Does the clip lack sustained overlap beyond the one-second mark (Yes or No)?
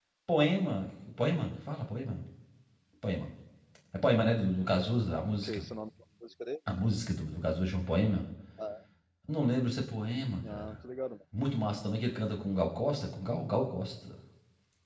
Yes